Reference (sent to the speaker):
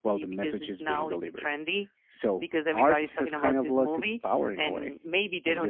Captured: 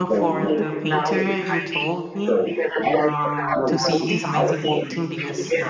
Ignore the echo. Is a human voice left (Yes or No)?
Yes